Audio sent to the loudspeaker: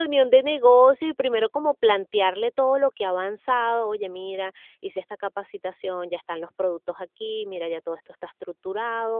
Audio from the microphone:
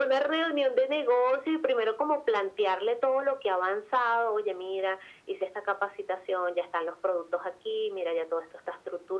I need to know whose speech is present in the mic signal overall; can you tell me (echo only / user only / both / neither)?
echo only